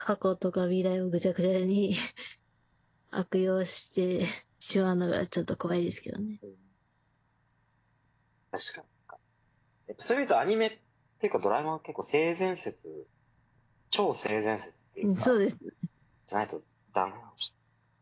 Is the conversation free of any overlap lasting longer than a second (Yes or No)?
Yes